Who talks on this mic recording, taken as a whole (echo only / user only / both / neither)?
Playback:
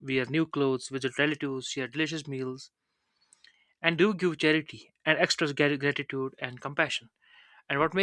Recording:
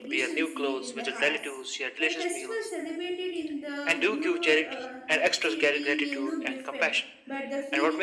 both